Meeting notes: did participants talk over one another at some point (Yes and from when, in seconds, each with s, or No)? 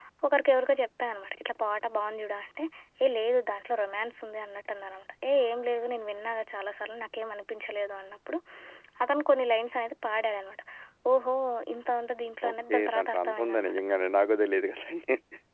Yes, from 12.5 s